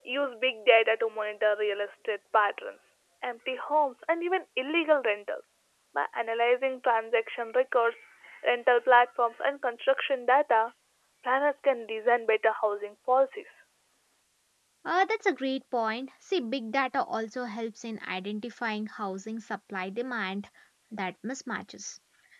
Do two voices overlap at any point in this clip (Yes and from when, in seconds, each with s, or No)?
No